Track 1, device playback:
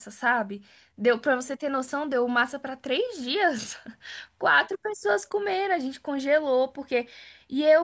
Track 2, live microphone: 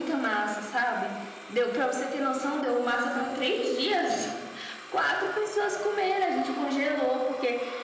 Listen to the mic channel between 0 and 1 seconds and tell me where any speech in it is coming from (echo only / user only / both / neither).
echo only